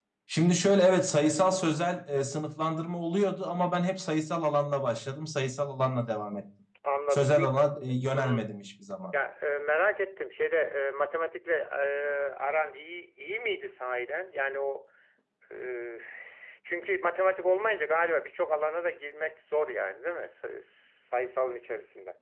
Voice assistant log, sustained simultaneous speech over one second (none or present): present